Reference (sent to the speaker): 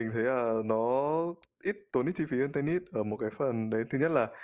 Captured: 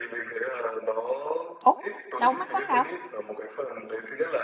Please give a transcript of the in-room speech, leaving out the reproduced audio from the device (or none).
Ố! Đâu mắc lắm đâu?